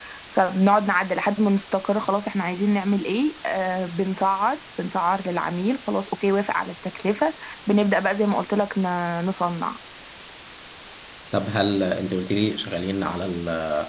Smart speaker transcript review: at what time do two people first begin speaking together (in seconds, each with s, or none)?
none